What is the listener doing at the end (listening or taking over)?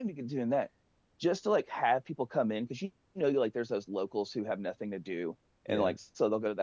listening